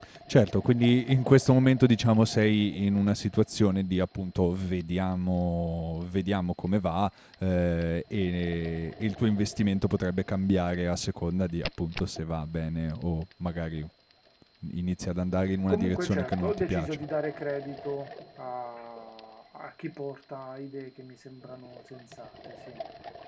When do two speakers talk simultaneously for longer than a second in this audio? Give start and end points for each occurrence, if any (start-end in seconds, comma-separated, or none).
15.7-17.0